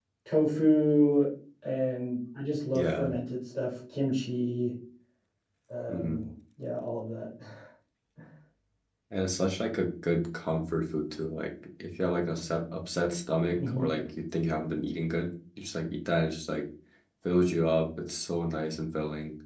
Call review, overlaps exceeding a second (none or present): none